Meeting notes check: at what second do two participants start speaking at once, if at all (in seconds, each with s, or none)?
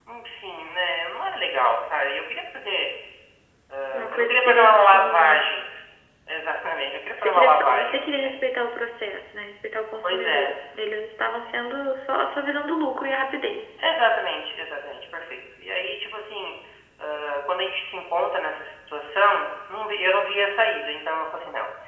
4.1 s